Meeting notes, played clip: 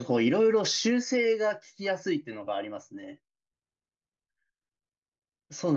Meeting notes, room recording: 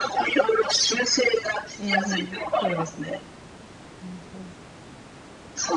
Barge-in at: 1.8 s

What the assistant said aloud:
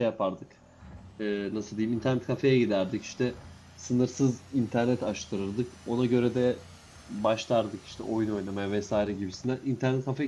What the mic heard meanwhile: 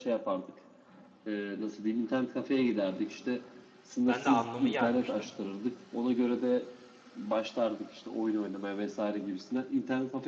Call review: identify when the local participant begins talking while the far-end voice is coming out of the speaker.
4.1 s

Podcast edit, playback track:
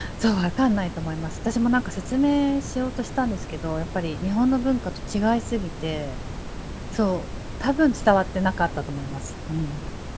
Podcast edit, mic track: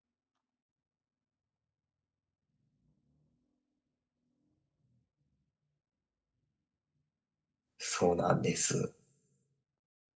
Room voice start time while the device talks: 7.8 s

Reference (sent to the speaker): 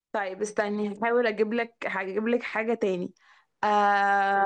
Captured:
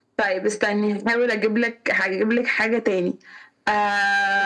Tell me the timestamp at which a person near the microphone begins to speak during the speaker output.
none

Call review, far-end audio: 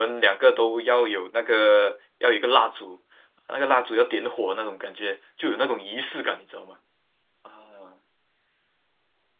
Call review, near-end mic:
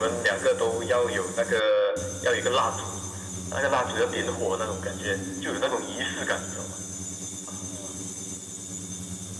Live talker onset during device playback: none

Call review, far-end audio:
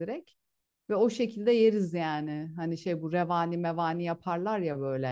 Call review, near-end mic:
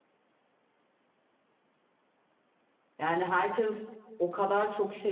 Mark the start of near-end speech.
3.0 s

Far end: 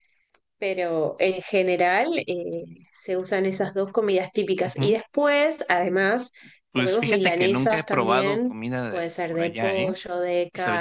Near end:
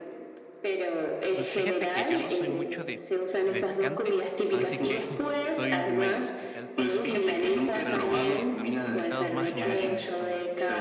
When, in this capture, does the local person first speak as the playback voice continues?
1.3 s

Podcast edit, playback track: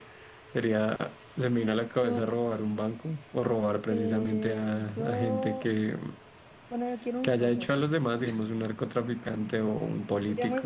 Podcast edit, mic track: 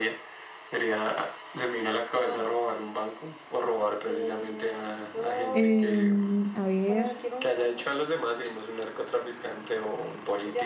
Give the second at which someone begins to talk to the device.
5.6 s

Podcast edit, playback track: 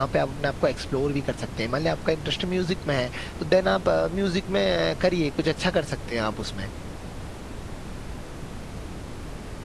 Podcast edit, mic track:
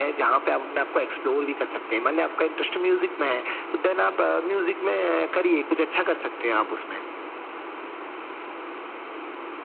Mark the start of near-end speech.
none

